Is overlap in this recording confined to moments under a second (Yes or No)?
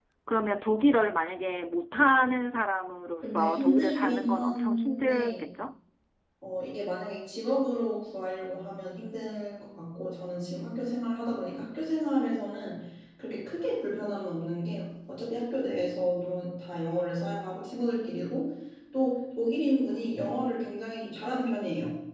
No